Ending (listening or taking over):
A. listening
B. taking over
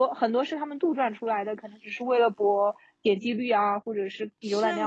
B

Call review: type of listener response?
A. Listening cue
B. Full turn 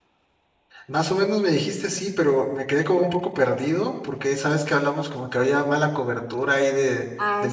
A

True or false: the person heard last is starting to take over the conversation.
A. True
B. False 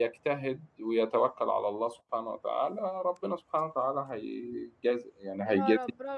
A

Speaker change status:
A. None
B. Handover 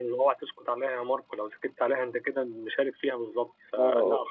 A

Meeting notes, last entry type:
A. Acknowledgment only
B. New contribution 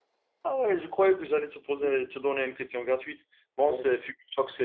A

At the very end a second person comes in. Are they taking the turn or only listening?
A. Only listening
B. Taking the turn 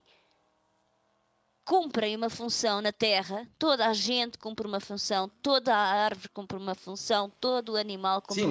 B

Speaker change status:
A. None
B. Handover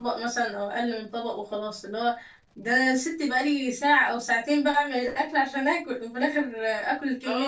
B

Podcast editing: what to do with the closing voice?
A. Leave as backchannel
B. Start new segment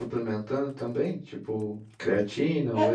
B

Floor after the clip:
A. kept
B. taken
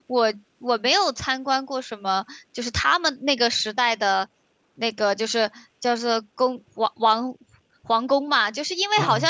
A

